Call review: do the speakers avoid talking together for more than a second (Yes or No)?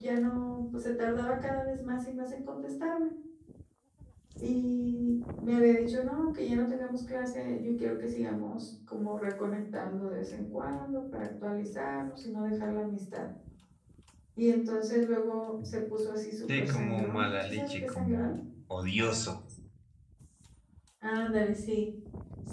No